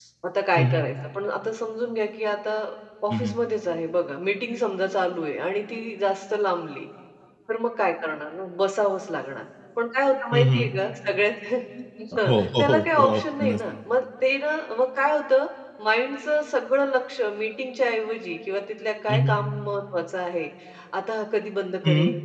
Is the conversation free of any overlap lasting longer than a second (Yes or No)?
No